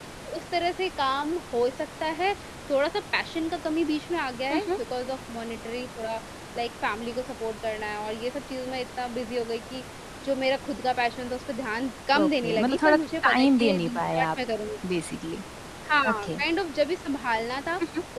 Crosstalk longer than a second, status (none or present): present